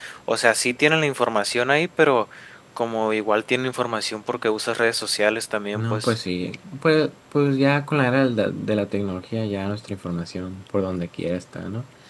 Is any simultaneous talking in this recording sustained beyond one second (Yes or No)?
No